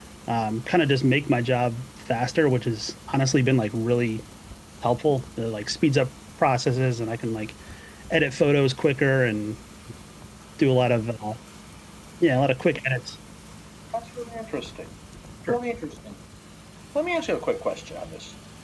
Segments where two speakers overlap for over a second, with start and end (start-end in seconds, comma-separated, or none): none